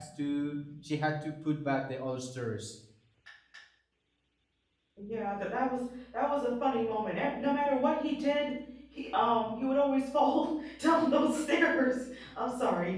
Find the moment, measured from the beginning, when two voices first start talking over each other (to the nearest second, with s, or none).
none